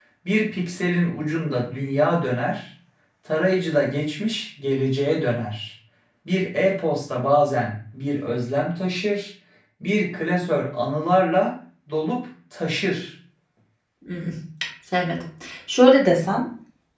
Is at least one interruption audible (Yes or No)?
No